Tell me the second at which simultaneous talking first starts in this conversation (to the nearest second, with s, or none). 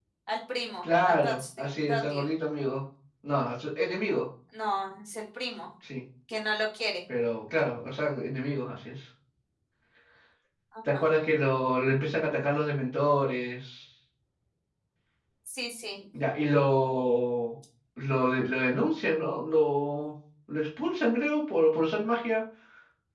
1 s